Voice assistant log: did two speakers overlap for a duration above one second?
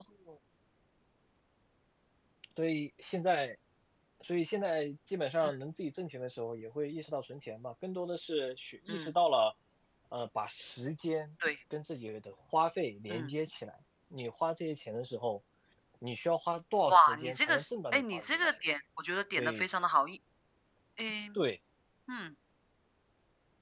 Yes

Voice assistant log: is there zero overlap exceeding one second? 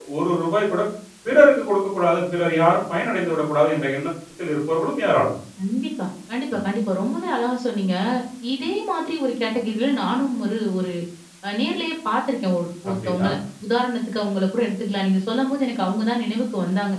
Yes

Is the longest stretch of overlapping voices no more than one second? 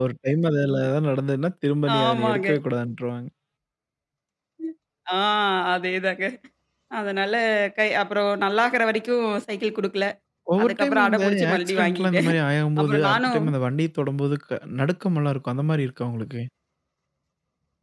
No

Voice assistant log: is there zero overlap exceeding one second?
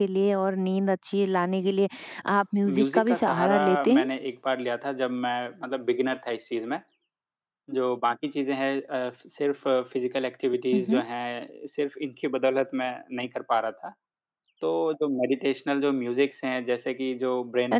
No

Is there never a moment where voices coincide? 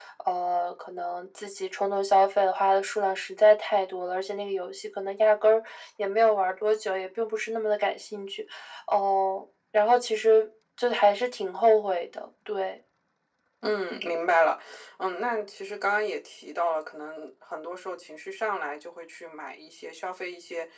Yes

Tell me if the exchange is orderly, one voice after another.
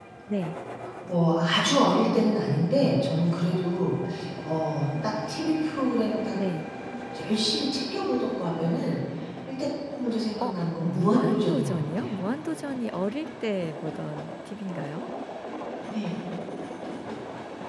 No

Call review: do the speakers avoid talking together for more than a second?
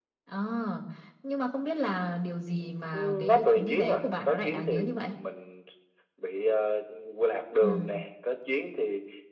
No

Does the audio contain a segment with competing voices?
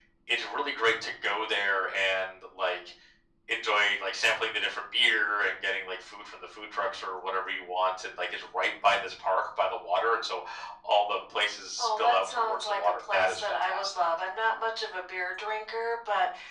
Yes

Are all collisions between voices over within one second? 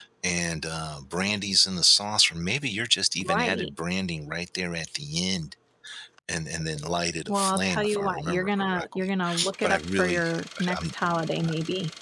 No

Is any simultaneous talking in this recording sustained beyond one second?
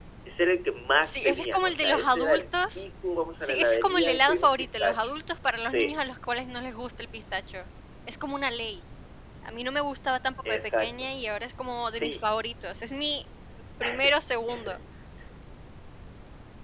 Yes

